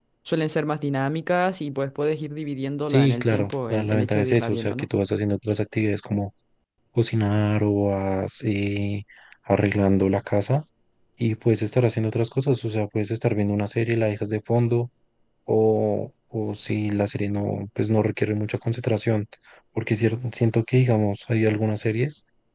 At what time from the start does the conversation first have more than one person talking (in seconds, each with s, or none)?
2.9 s